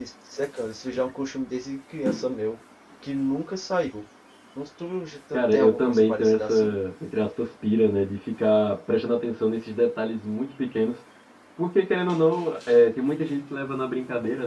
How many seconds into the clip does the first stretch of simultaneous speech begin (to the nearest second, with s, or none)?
5 s